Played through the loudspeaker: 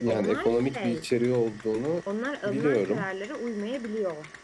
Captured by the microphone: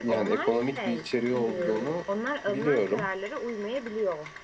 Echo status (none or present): present